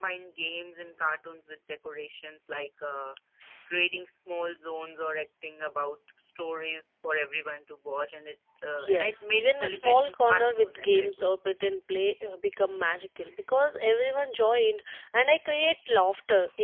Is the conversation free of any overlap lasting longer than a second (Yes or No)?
No